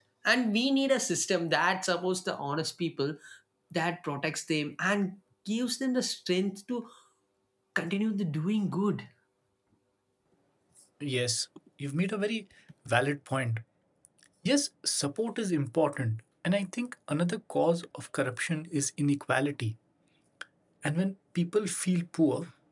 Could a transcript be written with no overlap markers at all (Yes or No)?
Yes